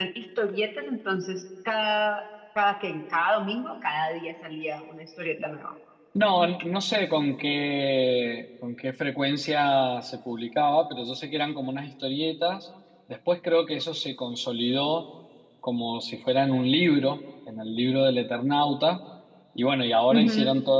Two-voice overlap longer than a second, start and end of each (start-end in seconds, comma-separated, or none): none